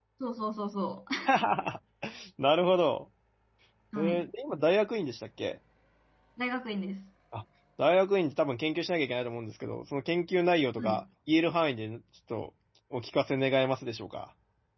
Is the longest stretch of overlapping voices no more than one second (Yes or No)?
Yes